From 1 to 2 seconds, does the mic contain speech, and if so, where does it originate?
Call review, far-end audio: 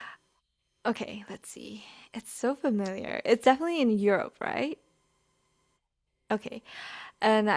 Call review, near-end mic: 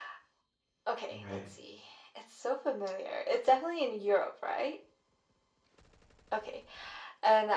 both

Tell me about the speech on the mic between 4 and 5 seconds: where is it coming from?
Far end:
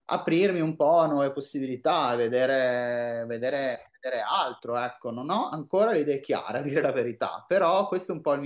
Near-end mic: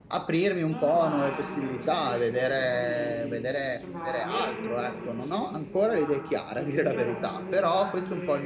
both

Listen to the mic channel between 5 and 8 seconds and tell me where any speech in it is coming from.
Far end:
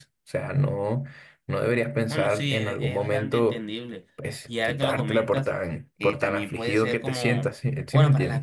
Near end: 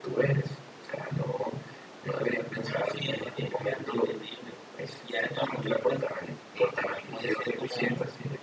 echo only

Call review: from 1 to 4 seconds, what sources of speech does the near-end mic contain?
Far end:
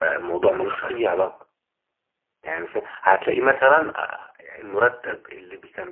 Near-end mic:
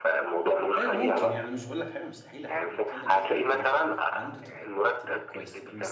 both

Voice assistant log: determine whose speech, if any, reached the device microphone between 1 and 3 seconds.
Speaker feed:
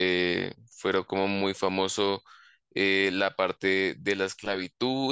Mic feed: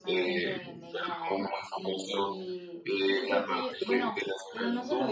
both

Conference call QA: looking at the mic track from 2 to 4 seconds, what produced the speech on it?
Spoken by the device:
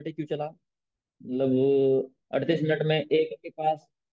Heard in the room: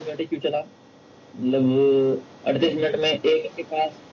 echo only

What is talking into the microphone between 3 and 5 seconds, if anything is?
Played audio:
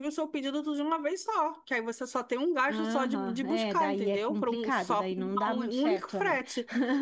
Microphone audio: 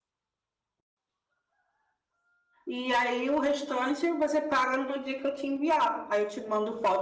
user only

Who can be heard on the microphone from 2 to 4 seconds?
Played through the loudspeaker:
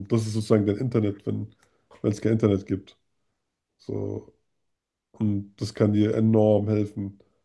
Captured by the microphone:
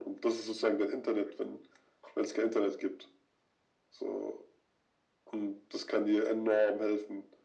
echo only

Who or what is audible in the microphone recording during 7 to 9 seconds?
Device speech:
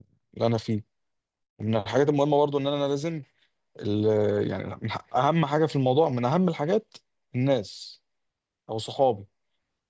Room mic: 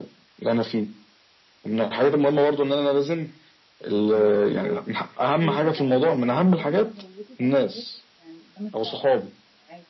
both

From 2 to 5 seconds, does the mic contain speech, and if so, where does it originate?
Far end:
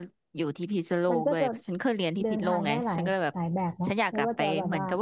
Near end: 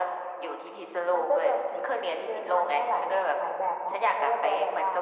echo only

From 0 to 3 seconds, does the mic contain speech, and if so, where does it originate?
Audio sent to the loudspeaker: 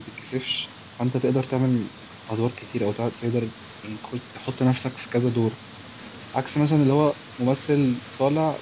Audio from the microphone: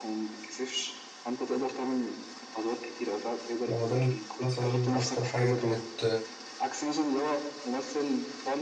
echo only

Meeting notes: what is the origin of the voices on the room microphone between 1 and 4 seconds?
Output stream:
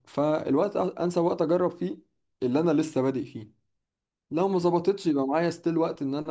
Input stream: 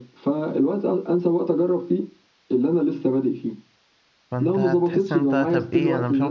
echo only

